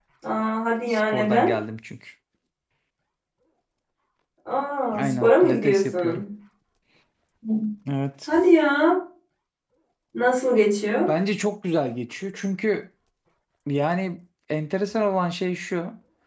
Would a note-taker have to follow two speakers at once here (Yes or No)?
Yes